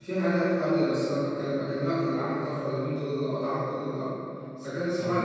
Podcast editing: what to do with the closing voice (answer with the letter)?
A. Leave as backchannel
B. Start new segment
A